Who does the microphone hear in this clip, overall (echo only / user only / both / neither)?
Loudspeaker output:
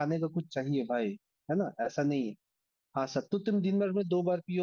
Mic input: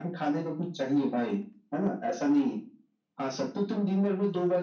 echo only